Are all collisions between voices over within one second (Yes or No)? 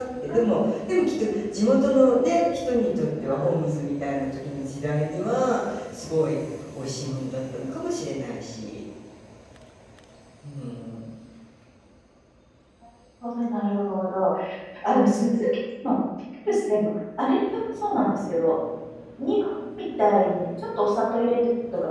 Yes